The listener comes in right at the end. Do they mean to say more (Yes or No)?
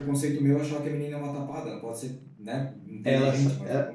Yes